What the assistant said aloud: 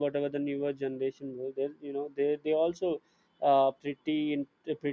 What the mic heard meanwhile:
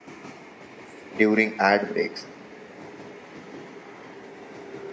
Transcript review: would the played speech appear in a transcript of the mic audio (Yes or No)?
No